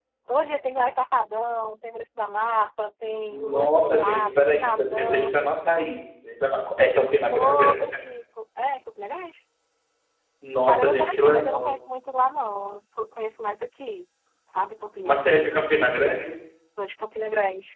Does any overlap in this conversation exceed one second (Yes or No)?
Yes